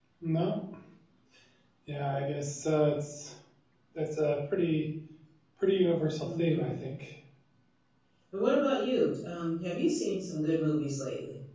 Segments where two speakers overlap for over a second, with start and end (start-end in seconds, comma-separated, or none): none